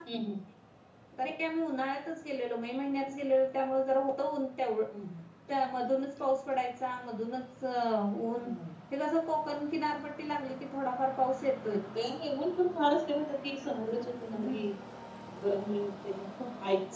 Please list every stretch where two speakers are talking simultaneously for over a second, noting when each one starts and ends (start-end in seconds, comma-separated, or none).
none